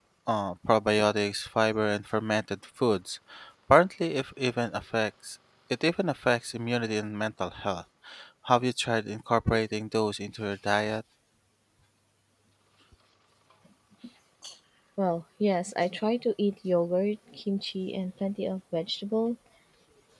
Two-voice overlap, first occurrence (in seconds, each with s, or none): none